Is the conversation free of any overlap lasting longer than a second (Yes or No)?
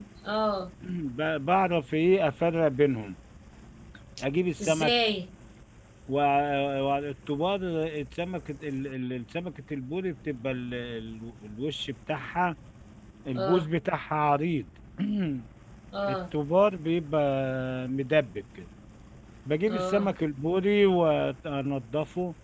Yes